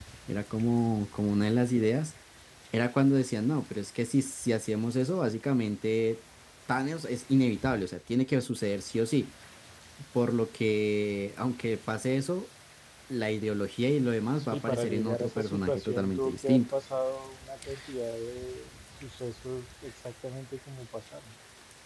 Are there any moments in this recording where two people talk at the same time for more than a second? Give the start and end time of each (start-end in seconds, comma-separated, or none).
14.4-16.6